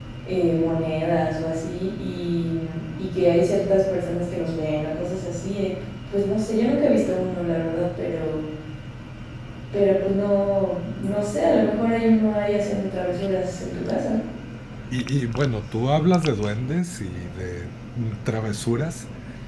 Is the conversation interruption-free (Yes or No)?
Yes